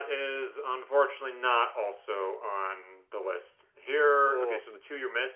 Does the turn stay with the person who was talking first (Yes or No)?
Yes